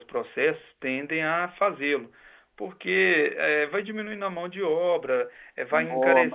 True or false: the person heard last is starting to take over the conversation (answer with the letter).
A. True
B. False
B